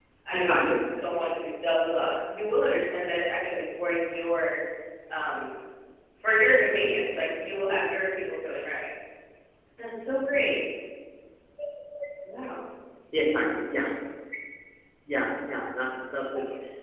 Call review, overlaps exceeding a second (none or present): none